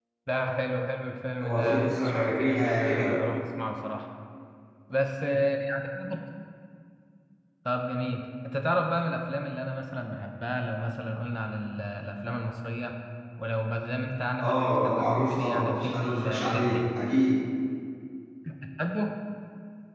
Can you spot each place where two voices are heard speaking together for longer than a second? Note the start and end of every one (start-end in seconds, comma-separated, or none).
1.4-3.1, 14.4-16.8